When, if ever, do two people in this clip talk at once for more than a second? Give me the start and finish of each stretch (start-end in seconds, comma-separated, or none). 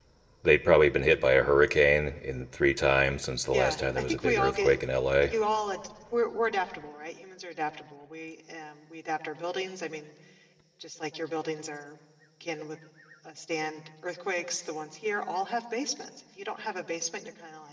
3.5-4.7